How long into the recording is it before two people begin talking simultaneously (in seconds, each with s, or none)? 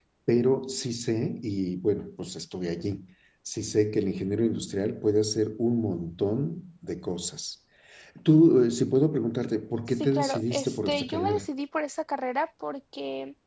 9.9 s